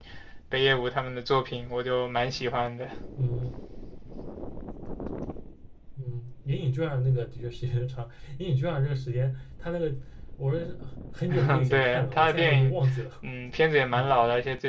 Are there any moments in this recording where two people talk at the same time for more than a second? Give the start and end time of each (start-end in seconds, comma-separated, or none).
11.3-12.7